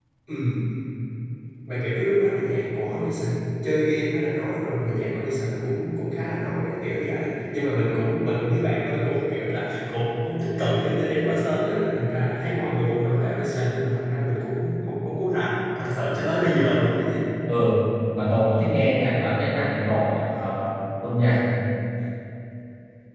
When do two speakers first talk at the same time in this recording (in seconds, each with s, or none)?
none